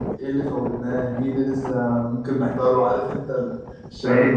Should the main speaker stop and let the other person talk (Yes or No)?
No